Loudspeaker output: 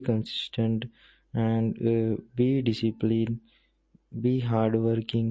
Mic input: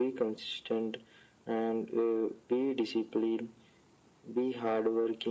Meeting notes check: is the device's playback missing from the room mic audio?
No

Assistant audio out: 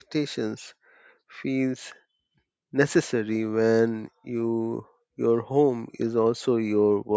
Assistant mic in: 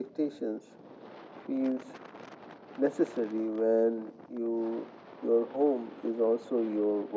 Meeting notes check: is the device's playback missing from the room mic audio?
No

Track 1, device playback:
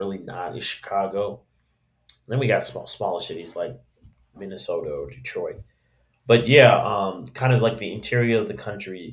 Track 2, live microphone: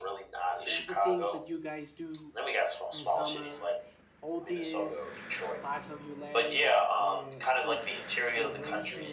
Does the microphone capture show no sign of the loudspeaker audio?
No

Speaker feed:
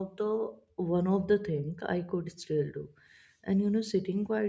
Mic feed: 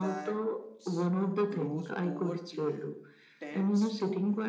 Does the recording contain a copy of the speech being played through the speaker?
Yes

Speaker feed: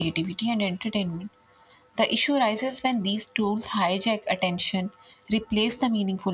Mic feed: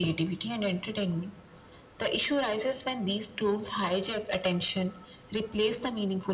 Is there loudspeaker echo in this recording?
Yes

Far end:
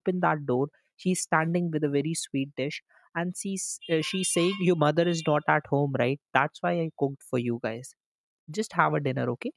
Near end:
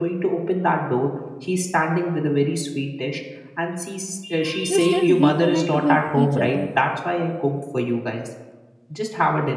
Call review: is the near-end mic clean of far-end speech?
No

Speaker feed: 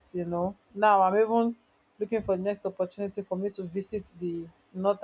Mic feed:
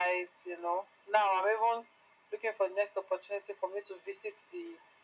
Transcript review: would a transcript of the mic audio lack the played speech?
No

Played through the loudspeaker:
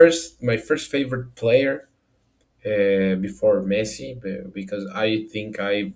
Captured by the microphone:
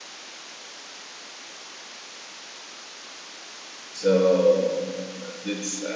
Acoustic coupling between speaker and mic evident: No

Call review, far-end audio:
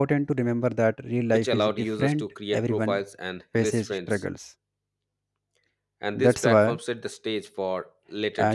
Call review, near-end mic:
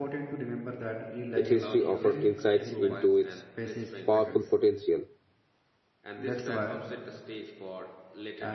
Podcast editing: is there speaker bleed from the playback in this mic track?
Yes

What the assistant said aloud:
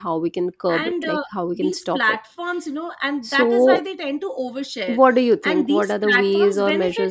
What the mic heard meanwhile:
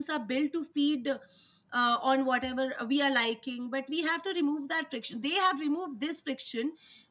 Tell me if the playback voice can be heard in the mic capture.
No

